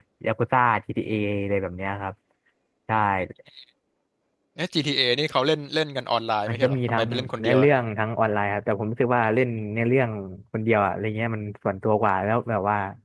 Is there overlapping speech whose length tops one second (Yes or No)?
Yes